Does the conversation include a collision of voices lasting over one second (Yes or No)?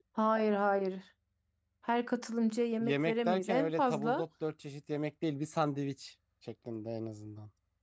Yes